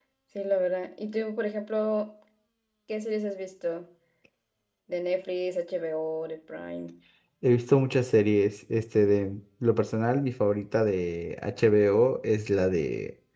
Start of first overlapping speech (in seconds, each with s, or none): none